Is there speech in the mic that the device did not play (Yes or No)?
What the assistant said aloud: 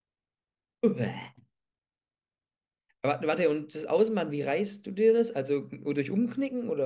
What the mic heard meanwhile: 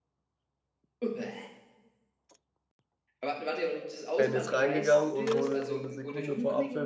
Yes